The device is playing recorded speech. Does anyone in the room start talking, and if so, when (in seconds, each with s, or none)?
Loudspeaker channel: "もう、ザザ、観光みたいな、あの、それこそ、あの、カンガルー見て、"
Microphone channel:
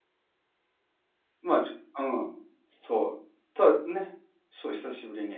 1.4 s